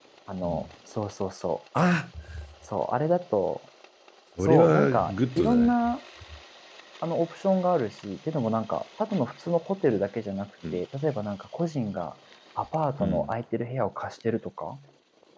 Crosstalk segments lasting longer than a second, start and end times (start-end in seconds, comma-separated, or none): 4.4-5.7